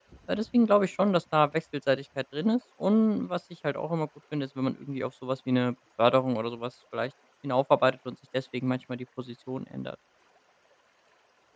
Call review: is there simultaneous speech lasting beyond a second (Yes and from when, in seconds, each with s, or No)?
No